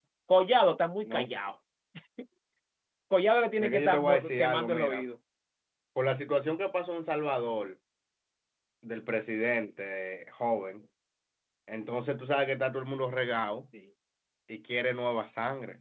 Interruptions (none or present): present